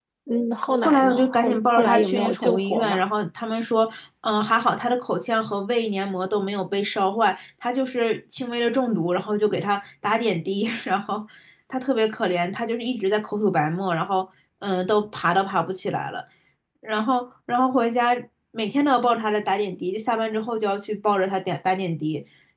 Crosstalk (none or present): present